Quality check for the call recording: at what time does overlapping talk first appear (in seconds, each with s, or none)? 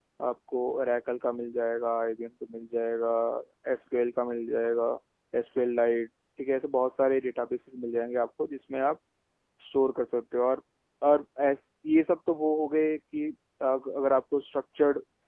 none